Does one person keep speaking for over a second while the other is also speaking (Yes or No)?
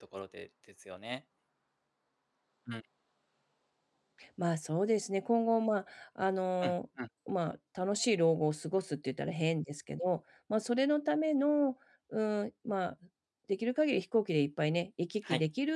No